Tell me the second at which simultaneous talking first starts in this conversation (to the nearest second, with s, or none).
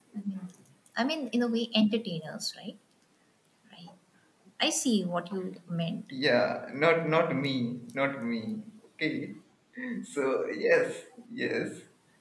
none